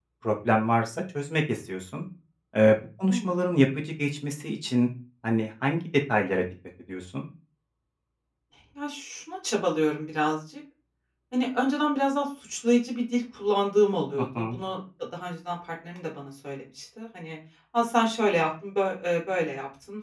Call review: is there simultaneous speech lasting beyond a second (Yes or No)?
No